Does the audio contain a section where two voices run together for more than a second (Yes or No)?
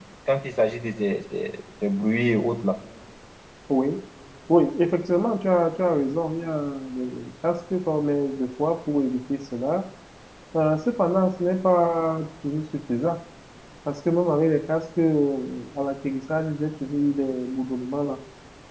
No